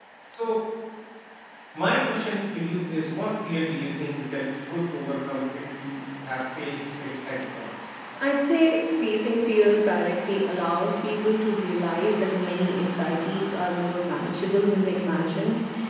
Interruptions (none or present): none